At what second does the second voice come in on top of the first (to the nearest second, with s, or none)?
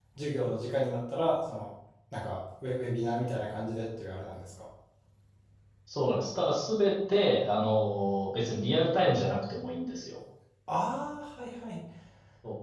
none